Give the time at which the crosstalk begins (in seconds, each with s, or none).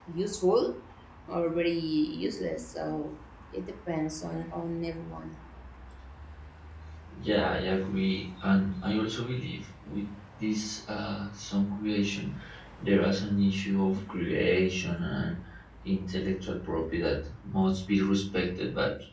none